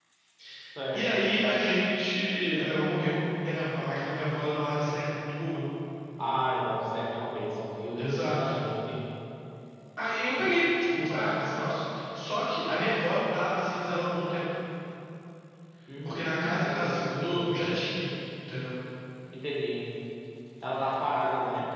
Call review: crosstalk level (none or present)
present